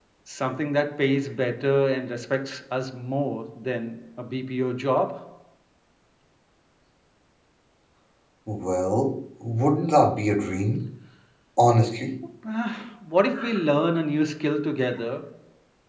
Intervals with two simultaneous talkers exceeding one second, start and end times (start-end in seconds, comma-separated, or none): none